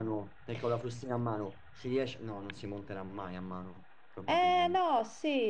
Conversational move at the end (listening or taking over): taking over